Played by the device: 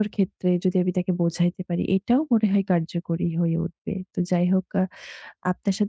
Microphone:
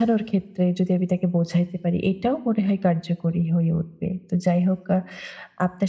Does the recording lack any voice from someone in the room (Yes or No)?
Yes